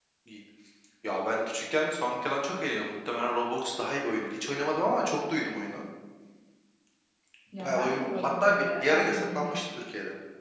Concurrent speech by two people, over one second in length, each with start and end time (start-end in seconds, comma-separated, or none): 7.6-9.6